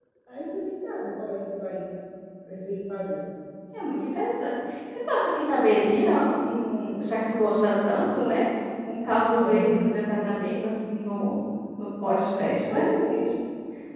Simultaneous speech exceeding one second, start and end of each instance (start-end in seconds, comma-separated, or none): none